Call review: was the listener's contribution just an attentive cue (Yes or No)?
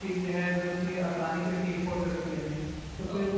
Yes